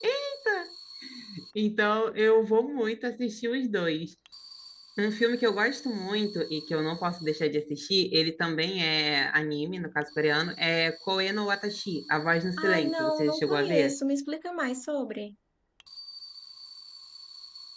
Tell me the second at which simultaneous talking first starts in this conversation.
12.6 s

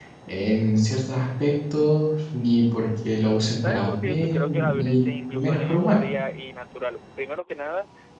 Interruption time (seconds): 3.6 s

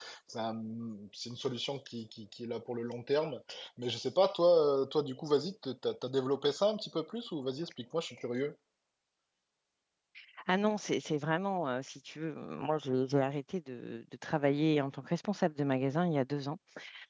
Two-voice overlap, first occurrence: none

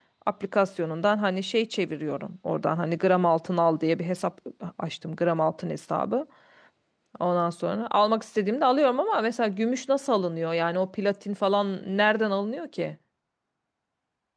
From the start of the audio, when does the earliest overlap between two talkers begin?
none

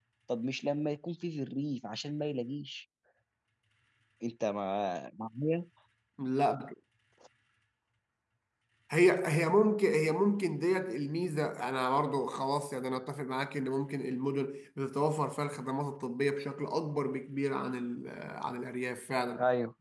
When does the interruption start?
none

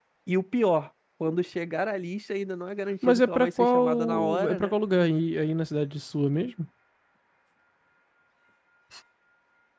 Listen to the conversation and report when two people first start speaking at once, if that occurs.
3.0 s

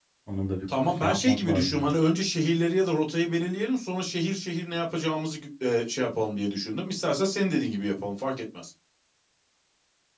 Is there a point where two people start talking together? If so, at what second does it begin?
0.8 s

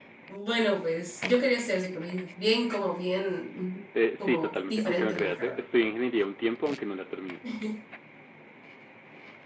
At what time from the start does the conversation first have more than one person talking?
3.9 s

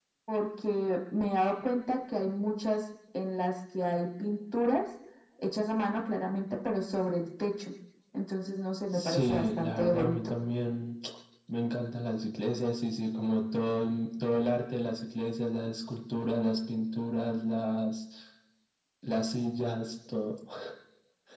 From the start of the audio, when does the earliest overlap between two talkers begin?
8.9 s

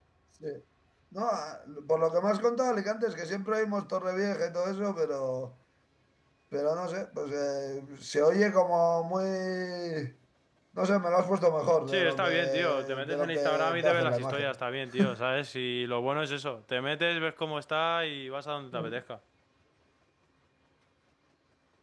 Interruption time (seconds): 11.9 s

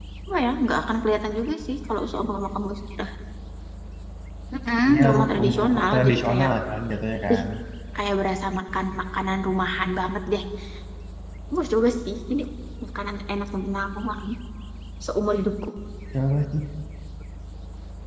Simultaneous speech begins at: 4.9 s

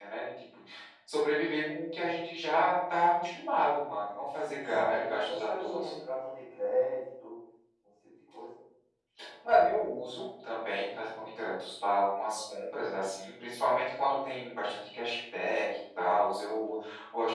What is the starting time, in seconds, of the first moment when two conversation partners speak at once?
4.4 s

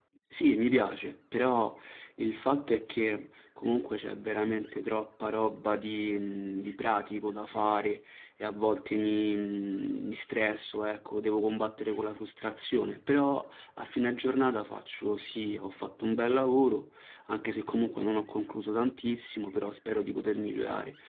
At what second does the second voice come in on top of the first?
none

